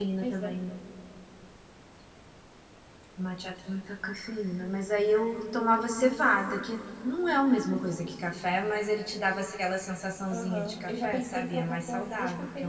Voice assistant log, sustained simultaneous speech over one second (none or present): present